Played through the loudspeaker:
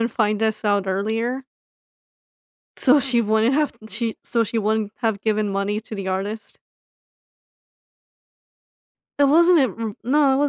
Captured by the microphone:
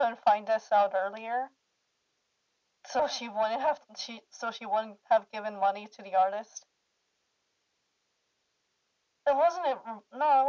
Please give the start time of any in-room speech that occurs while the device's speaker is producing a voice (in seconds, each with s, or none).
none